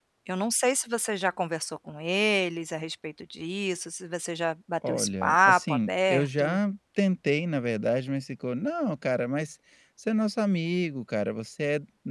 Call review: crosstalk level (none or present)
present